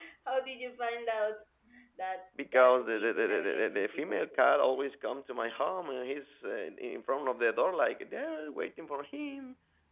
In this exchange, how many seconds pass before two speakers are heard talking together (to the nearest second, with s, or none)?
2 s